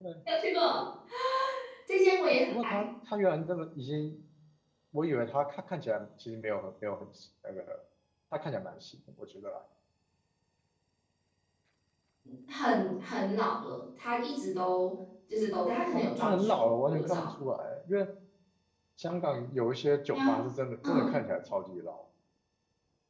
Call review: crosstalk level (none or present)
present